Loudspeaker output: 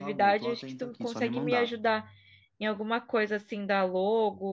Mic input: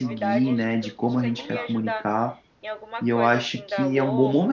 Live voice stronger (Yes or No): Yes